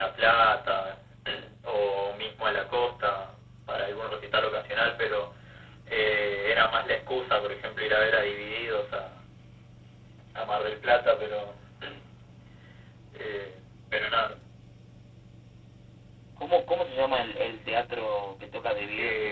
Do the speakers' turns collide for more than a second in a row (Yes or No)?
No